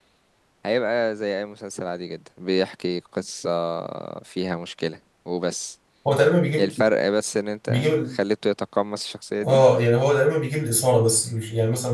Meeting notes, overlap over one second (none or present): none